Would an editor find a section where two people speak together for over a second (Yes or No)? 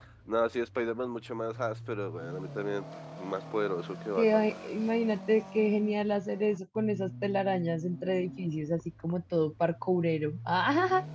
No